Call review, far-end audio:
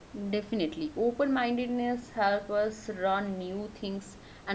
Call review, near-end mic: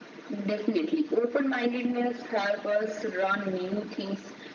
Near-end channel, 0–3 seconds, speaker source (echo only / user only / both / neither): echo only